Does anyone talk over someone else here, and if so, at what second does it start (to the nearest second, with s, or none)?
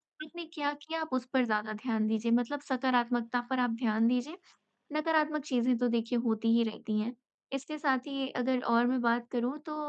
none